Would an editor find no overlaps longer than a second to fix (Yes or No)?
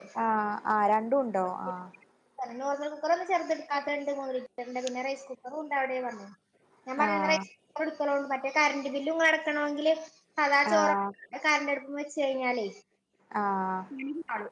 Yes